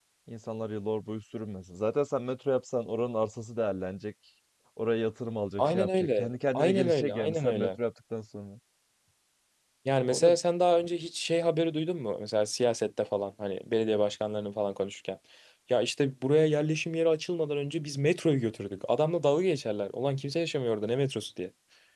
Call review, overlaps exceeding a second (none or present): present